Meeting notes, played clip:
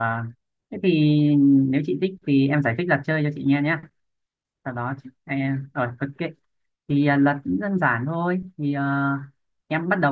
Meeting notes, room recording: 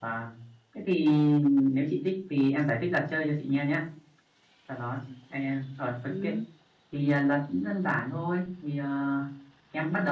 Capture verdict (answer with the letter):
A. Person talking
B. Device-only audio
A